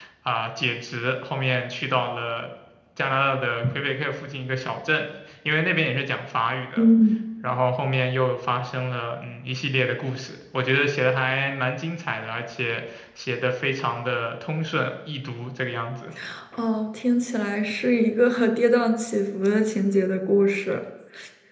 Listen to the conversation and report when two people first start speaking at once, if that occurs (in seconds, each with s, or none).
none